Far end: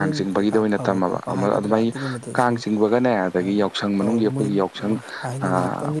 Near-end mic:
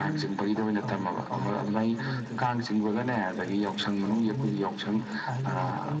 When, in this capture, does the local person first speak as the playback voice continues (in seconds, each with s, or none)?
none